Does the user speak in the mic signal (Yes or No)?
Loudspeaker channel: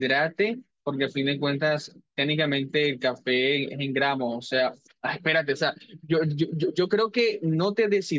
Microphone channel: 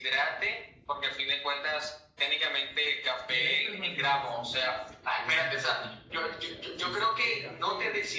Yes